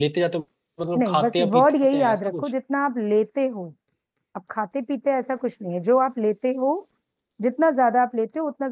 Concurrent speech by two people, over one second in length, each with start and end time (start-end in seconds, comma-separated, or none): 1.0-2.5